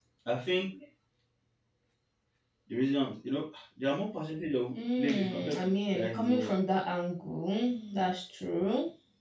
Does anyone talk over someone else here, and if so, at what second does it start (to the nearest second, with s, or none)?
5 s